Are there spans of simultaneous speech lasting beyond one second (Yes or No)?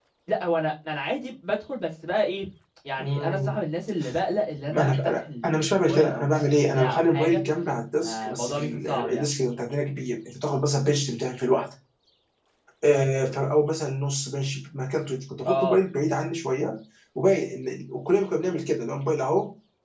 Yes